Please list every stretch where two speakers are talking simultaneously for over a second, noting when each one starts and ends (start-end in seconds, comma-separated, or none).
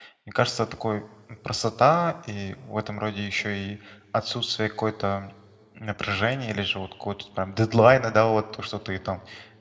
none